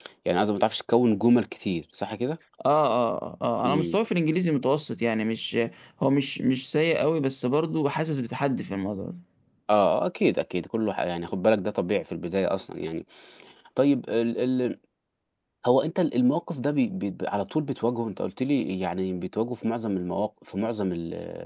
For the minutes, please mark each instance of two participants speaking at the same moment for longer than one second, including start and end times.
none

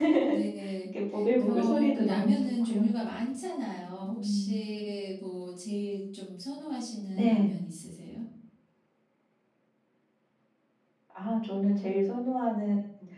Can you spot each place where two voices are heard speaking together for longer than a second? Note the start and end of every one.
1.4-2.9

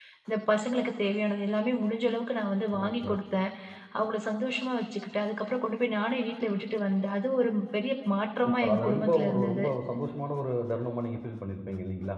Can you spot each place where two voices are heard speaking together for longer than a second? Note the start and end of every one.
8.4-9.6

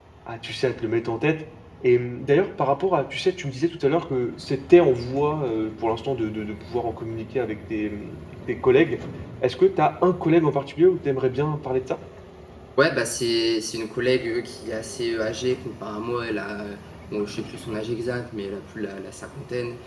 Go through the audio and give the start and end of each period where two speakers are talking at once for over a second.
none

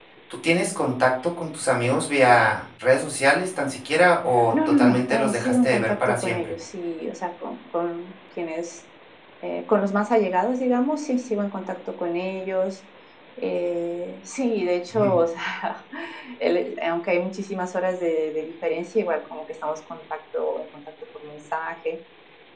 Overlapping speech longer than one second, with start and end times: 4.5-6.4

